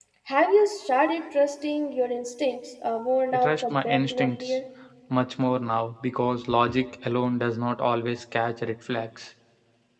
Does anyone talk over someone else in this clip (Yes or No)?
Yes